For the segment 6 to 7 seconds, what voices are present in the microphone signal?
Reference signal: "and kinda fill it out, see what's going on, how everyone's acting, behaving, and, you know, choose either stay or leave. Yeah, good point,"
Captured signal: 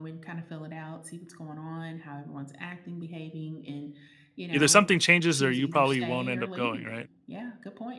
both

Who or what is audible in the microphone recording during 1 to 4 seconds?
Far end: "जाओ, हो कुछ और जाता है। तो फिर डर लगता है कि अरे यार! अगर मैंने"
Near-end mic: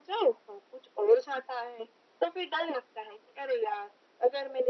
echo only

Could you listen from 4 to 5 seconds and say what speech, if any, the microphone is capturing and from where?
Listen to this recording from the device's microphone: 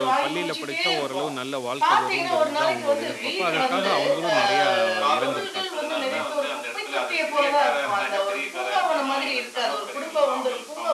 both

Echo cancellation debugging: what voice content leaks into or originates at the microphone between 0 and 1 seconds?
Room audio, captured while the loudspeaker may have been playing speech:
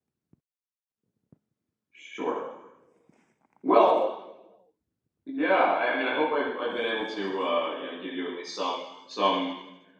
neither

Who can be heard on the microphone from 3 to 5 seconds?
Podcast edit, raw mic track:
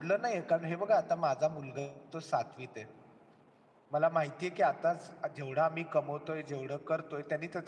echo only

